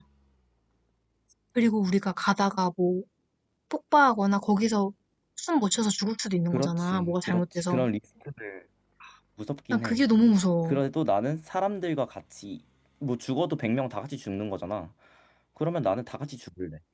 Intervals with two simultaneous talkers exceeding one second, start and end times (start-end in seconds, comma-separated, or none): 6.5-7.8